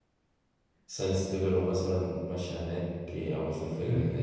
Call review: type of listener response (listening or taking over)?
taking over